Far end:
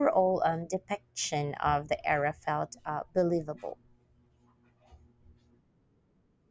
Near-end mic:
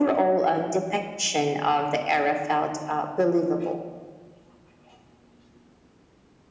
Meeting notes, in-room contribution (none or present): none